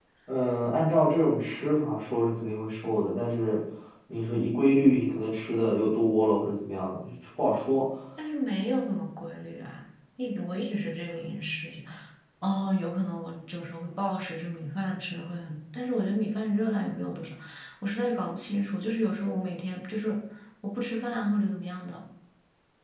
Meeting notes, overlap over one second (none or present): none